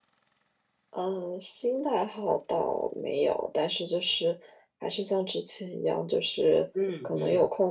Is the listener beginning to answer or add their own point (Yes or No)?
No